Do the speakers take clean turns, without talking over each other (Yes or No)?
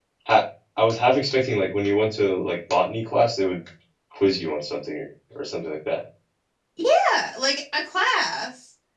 Yes